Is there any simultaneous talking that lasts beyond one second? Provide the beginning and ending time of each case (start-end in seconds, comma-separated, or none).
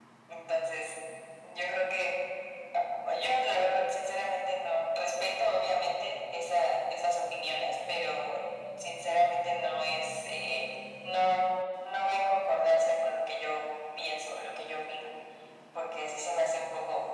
none